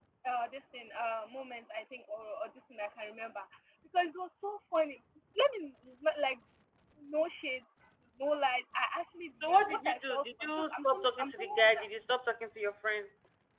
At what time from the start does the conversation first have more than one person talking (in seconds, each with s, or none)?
9.4 s